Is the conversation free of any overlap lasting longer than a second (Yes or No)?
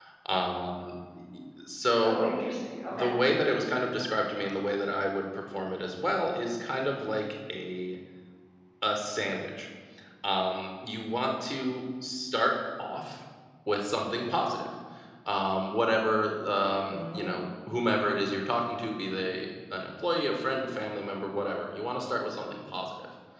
Yes